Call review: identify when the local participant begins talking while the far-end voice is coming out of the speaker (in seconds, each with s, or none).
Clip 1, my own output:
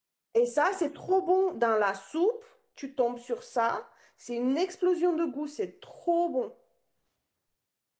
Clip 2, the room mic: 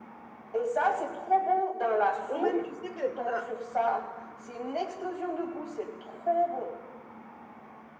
2.3 s